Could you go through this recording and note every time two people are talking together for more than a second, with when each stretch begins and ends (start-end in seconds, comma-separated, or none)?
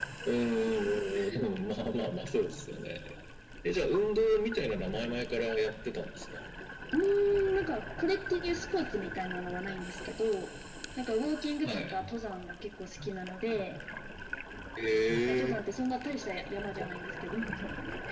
none